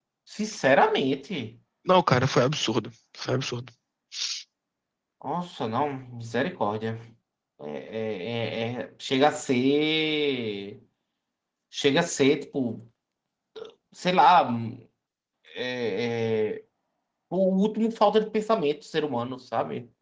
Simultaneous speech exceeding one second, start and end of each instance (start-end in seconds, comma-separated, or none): none